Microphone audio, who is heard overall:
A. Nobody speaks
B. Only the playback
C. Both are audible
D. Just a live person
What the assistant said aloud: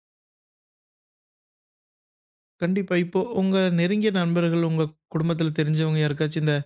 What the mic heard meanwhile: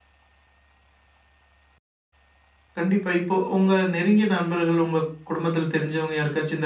B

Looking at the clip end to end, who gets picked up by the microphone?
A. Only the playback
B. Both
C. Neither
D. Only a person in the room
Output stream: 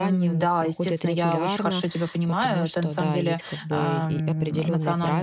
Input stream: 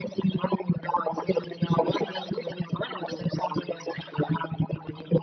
B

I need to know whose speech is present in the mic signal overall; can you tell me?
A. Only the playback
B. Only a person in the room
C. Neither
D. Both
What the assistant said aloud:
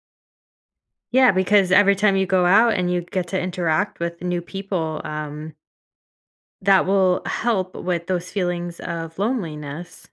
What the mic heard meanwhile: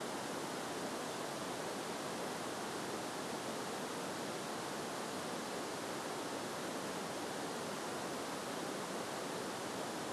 C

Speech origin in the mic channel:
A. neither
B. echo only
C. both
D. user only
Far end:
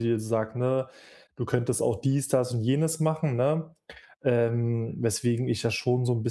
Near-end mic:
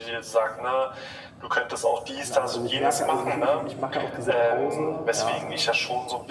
C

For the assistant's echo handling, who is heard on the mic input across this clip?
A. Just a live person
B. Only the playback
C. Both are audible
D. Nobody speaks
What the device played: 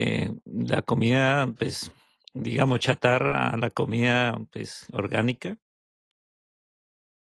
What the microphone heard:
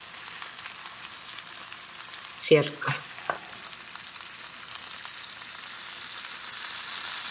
A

